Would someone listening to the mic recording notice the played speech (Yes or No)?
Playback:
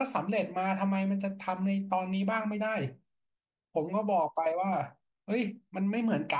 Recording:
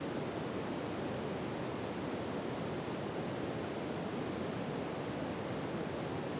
No